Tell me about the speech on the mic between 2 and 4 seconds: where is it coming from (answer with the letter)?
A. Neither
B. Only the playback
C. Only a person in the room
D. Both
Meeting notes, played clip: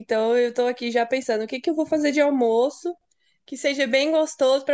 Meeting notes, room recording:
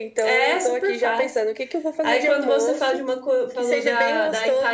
D